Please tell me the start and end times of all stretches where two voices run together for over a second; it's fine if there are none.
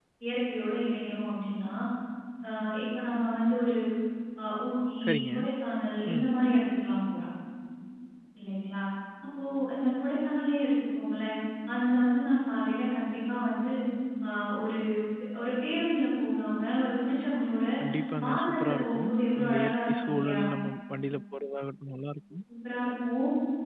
18.2-20.4

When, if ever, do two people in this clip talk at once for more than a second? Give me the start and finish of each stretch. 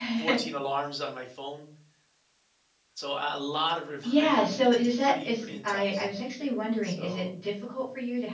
4.0-6.1

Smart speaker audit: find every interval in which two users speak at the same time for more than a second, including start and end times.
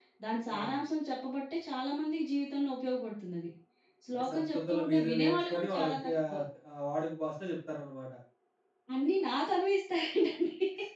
4.1-6.3

